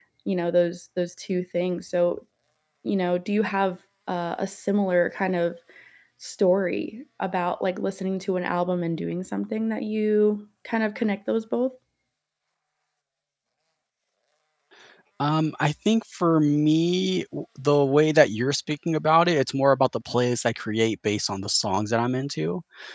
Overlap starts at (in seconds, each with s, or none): none